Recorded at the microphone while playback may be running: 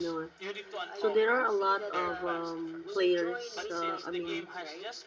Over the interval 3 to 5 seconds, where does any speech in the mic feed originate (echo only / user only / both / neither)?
both